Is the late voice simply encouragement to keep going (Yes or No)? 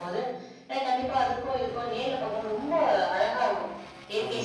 Yes